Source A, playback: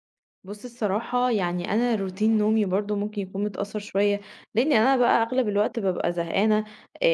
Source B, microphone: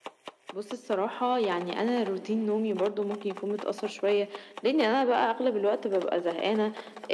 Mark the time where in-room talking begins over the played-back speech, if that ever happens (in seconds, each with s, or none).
none